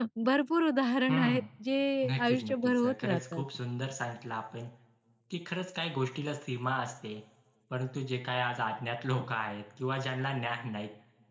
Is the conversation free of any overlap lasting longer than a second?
No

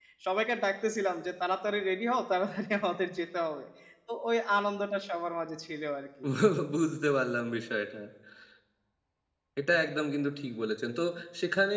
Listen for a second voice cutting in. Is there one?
No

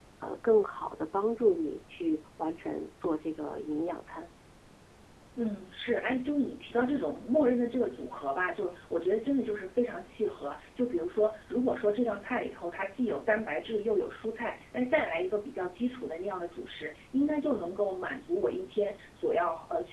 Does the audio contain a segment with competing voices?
No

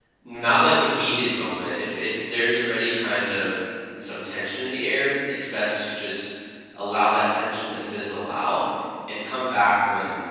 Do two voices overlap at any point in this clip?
No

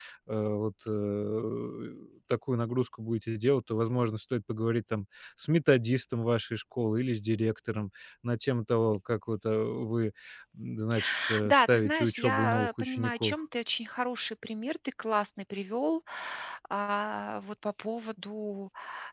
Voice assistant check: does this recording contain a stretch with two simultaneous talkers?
Yes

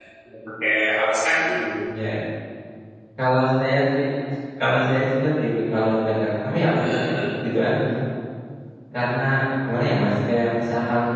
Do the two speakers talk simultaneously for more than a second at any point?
No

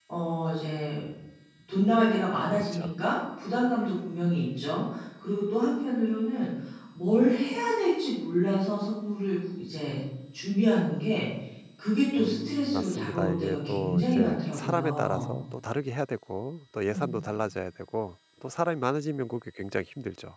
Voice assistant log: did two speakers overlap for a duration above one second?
Yes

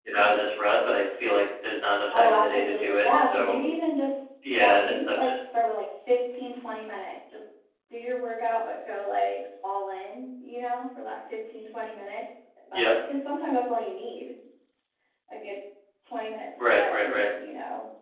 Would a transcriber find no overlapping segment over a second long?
No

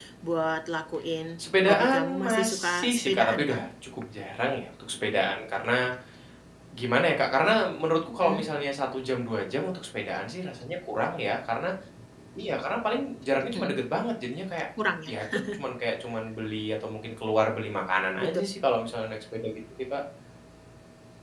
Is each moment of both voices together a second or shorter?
No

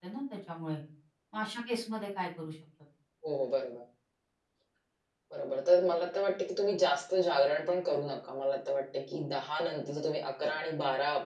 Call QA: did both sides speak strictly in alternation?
Yes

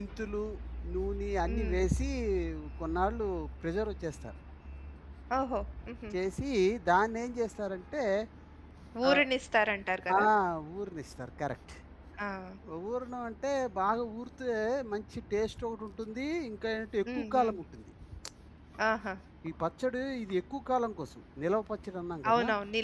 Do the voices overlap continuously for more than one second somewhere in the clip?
No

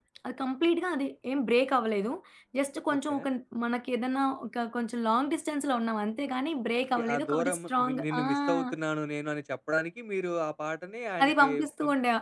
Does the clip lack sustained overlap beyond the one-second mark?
No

